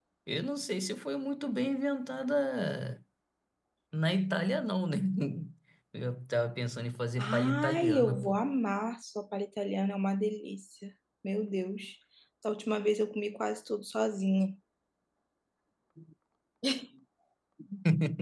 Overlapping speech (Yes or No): Yes